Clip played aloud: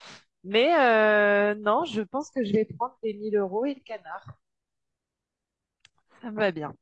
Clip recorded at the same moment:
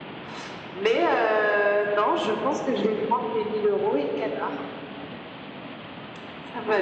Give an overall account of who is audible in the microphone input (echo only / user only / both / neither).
echo only